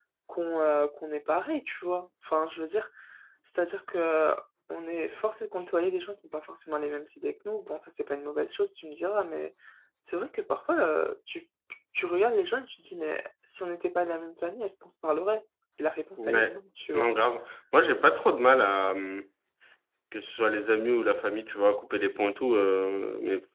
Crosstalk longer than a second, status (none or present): none